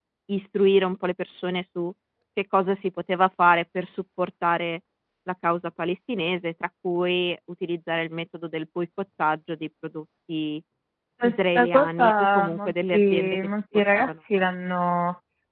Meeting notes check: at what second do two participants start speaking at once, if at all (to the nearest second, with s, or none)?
11 s